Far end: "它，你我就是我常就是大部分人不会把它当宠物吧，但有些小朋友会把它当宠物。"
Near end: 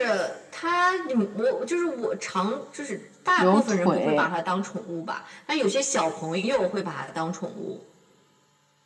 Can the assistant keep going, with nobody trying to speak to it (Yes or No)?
No